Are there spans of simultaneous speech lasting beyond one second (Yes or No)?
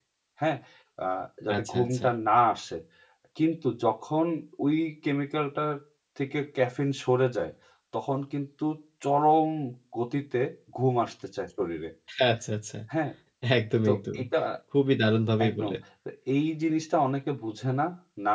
No